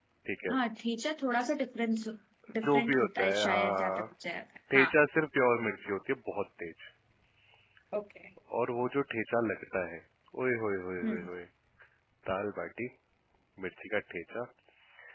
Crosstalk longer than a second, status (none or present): present